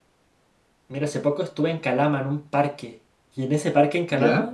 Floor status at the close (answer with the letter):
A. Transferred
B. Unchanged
B